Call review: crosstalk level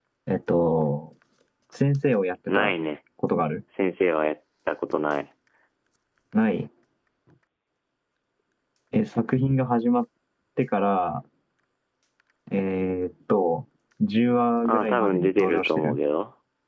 present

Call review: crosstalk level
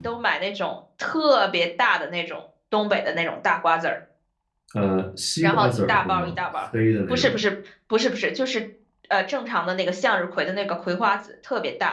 present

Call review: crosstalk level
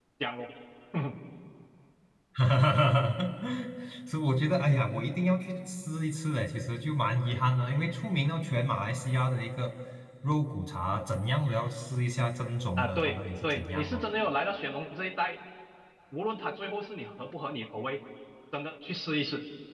present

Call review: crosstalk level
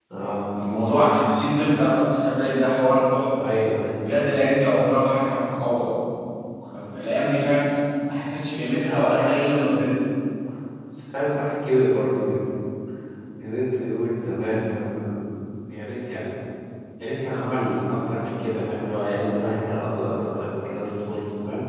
none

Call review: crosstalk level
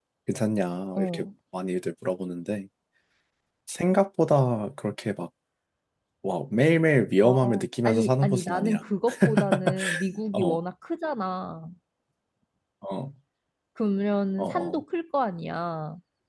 present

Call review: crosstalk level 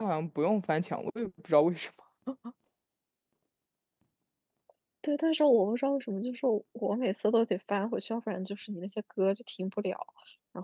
none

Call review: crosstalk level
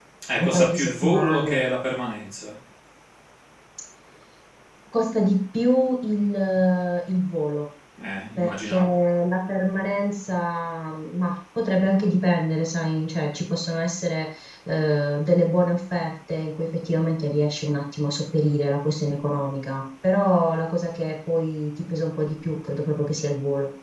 present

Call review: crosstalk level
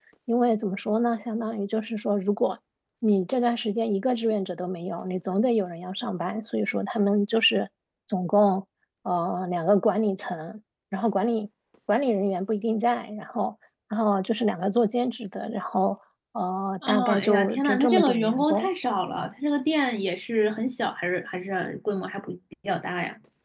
present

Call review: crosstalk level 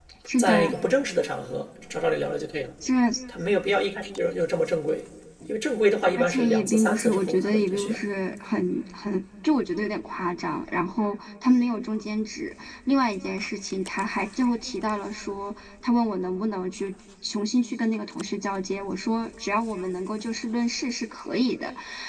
present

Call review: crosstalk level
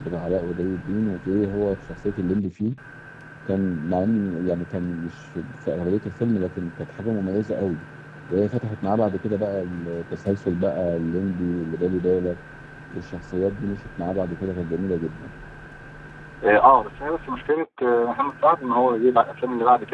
none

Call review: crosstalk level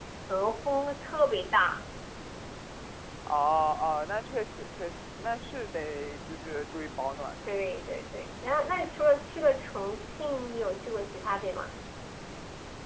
none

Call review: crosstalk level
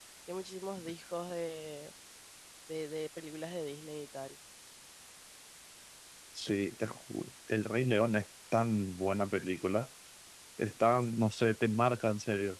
none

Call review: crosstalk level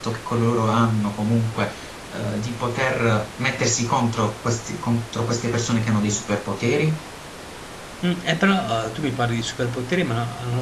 none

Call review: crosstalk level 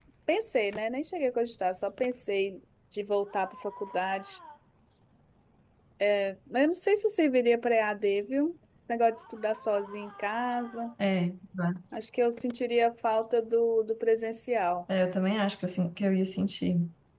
none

